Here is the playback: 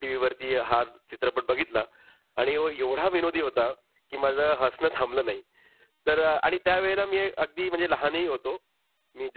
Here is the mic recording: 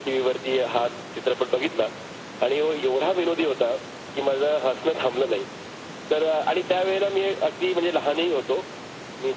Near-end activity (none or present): none